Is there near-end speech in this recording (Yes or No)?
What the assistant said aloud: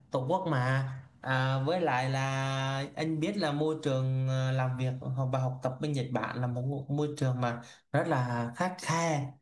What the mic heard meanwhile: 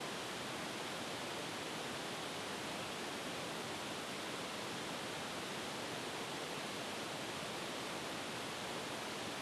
No